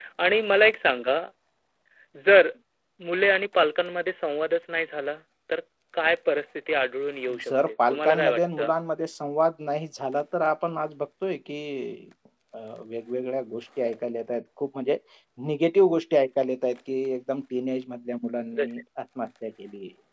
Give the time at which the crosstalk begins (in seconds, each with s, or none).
7.3 s